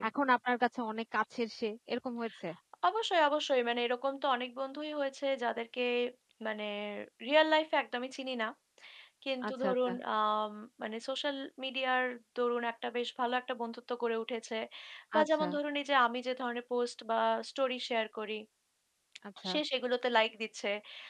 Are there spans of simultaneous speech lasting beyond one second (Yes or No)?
No